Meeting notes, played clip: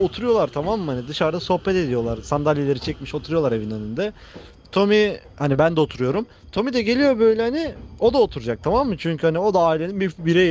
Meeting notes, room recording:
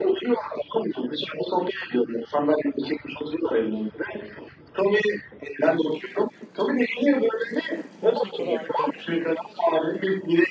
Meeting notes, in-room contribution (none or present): present